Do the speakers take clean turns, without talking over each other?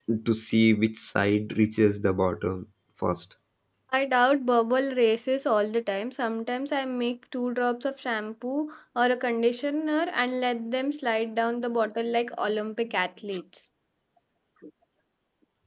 Yes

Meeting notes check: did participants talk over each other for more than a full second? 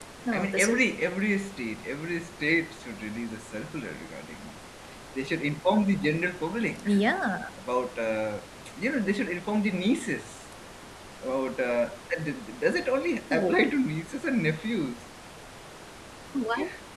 No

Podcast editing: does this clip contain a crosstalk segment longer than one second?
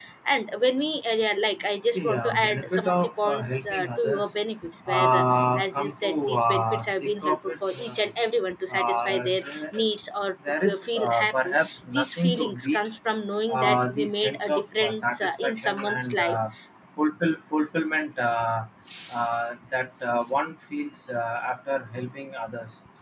Yes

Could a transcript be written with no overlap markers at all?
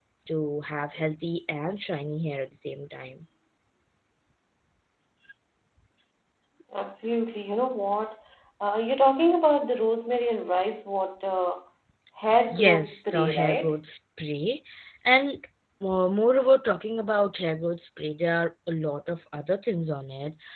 No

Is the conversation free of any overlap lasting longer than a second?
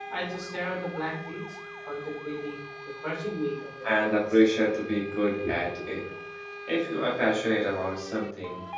Yes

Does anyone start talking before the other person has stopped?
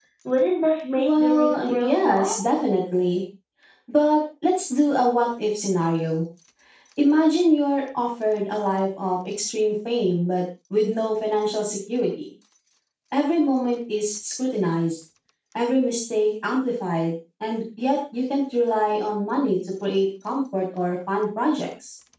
Yes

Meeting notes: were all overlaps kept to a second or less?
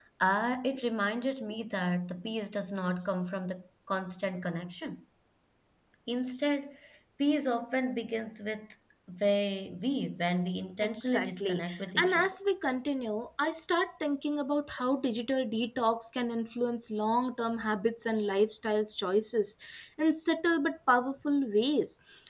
No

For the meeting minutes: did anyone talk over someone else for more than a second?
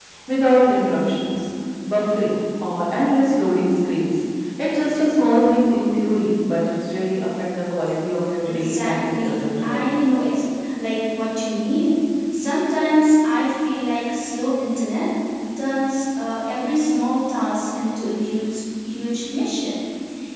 Yes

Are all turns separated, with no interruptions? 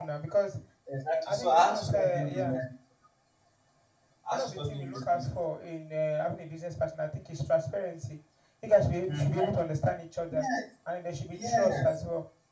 No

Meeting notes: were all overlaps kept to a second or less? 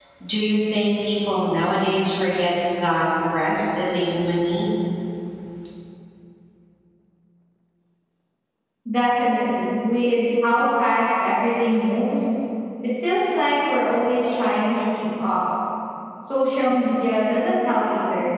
Yes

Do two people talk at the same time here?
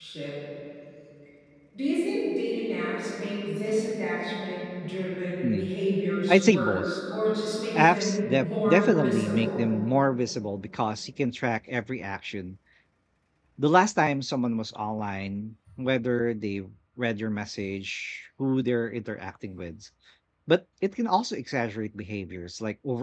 Yes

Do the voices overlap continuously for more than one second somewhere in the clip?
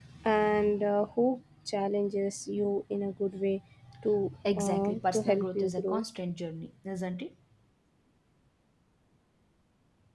Yes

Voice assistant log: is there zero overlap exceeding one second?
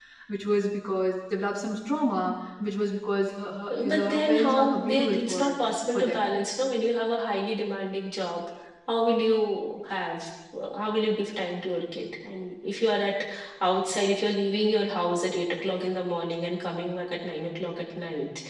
No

